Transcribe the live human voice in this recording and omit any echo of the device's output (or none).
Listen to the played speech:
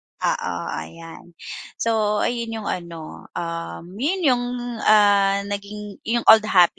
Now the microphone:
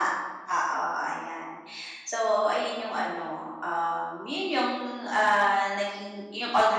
none